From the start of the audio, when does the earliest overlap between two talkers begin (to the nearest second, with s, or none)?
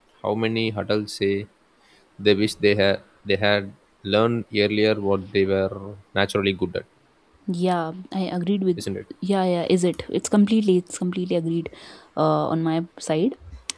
none